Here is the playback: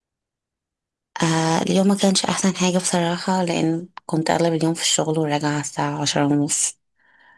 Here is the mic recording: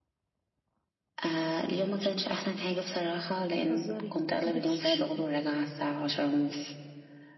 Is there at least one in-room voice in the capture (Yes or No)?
Yes